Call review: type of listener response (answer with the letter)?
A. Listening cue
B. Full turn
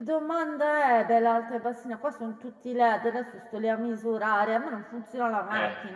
B